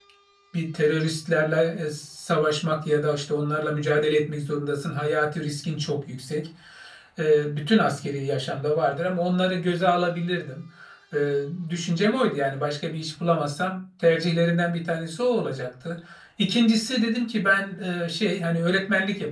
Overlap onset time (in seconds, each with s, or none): none